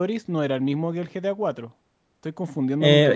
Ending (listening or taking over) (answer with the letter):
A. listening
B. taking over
B